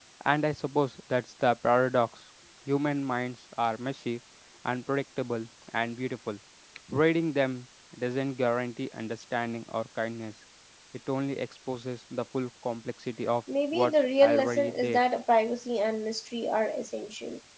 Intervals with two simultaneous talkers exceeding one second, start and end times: 13.7-15.0

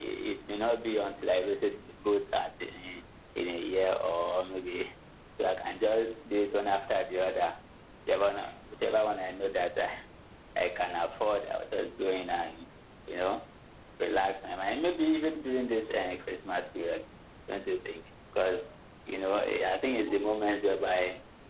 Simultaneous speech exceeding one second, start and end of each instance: none

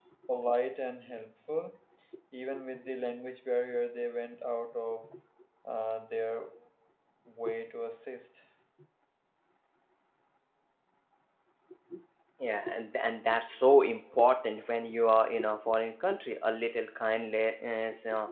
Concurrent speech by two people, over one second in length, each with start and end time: none

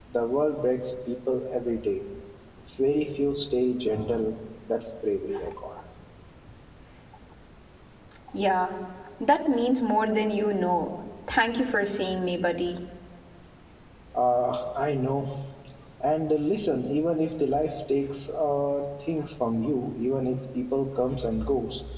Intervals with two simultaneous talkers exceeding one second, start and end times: none

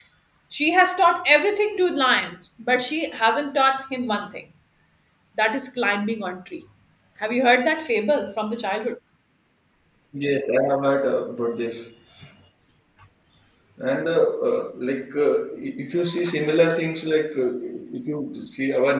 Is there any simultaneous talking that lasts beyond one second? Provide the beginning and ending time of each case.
none

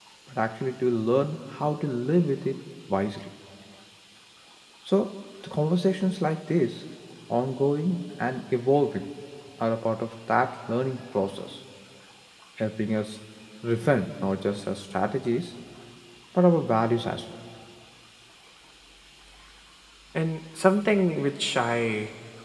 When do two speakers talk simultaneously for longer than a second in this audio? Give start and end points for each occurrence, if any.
none

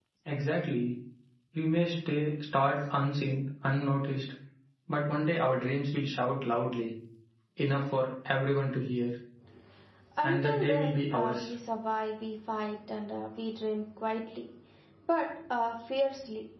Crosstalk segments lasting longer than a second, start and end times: 10.2-11.5

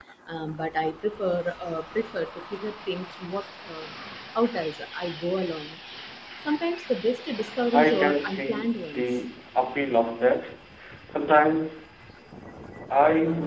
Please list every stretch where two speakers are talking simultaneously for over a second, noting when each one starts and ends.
7.7-9.0

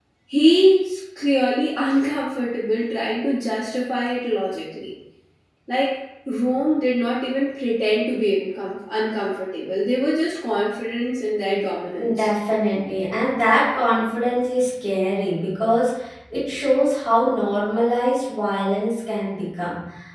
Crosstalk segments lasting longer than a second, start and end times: none

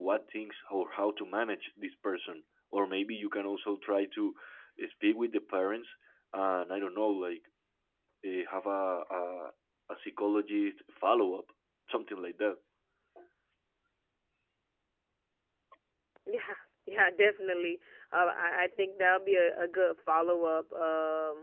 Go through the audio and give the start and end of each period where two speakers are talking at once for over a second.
none

